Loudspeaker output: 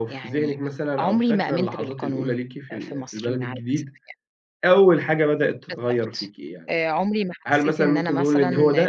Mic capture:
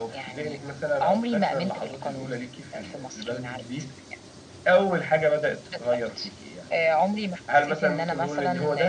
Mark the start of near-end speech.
none

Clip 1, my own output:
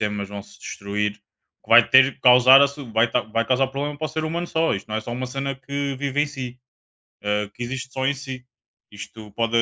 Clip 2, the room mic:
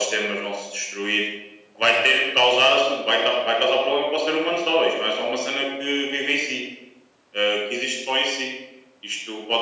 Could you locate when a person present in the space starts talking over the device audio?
none

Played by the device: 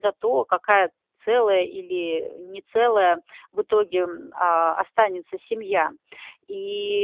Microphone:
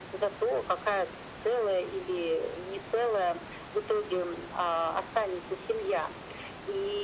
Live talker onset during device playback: none

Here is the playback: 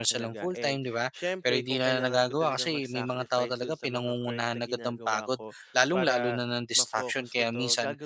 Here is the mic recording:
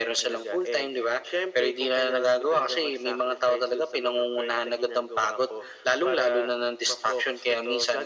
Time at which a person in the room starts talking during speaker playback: none

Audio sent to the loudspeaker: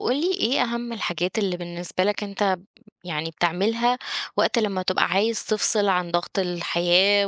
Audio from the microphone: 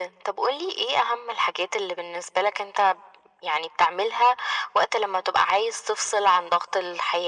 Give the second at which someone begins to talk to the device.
none

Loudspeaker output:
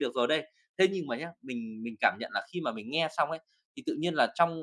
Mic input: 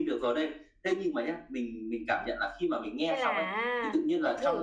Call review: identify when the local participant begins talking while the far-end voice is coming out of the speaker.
3.0 s

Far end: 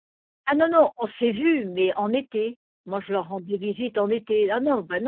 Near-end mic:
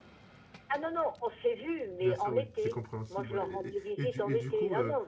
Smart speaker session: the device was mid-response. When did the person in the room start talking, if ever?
2.0 s

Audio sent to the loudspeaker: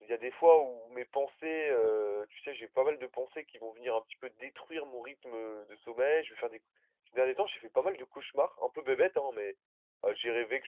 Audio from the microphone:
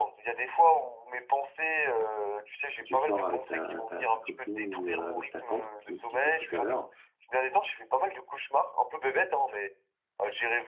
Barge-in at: 2.7 s

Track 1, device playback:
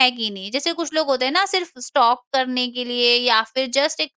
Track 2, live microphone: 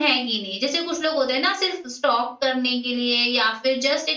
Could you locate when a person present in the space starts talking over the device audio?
none

